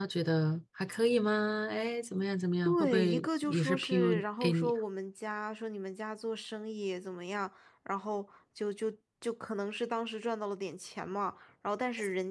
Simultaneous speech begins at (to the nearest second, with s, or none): 3 s